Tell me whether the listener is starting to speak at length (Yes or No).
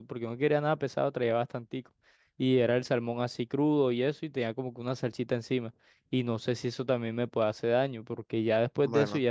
No